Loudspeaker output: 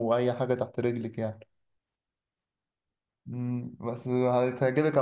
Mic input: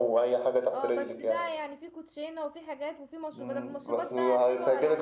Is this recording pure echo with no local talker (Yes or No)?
No